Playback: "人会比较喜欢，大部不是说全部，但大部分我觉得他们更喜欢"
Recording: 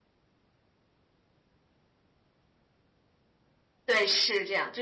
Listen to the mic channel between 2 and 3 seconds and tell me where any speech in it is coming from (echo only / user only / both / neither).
neither